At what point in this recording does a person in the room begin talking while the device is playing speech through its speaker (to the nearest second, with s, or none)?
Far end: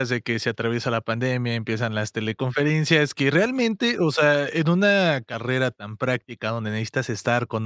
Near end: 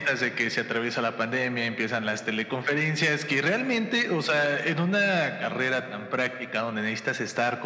none